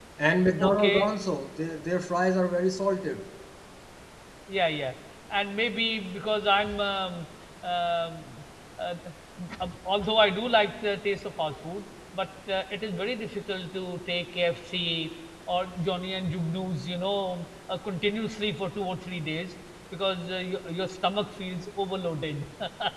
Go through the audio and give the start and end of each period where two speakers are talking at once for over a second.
none

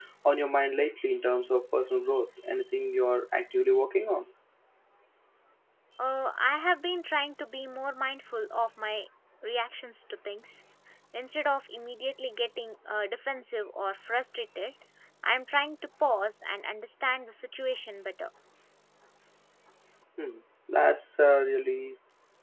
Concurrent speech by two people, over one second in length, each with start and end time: none

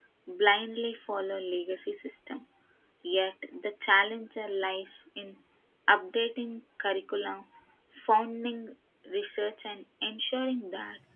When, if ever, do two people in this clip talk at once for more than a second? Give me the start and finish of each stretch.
none

